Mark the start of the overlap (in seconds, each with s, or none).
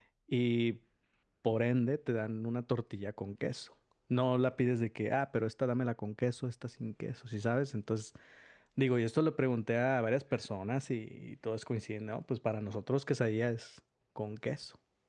none